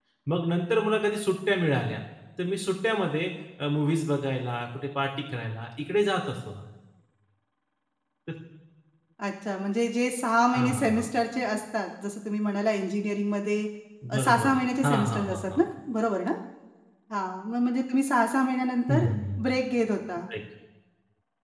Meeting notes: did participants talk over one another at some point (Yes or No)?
Yes